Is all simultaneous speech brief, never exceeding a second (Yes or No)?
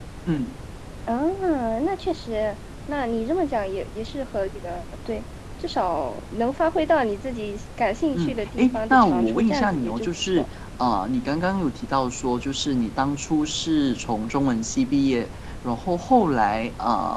No